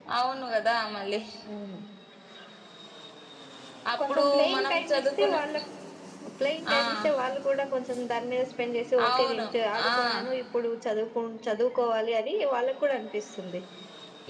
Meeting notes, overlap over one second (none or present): present